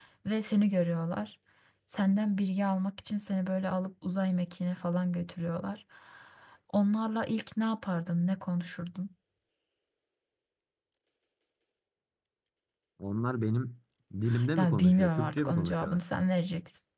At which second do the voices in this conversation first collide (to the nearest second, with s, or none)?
15 s